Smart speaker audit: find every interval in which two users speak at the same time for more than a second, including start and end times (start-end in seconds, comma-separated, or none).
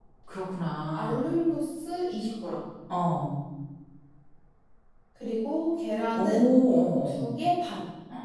none